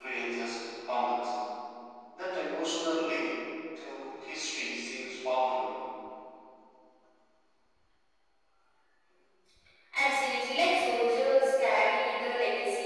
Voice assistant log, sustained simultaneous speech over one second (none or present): none